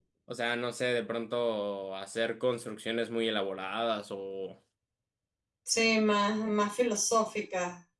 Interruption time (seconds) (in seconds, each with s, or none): none